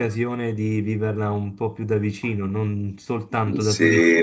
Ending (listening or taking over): taking over